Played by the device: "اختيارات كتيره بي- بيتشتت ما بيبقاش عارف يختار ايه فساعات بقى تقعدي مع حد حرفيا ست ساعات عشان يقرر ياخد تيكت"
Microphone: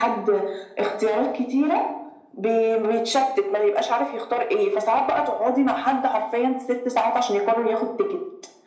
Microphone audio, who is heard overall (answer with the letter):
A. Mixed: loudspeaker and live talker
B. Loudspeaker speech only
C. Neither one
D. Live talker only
B